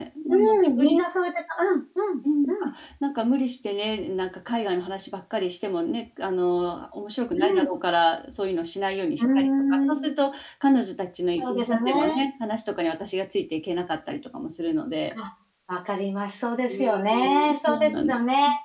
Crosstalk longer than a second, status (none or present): present